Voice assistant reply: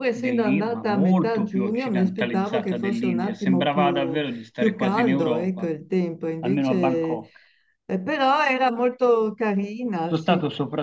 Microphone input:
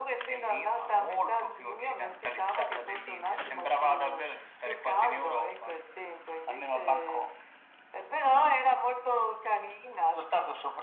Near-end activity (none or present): none